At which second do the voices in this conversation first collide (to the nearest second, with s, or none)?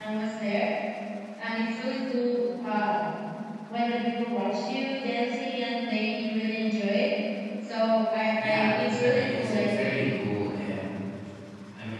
8 s